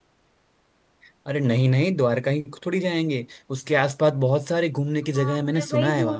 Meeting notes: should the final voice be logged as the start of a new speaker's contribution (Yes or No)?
Yes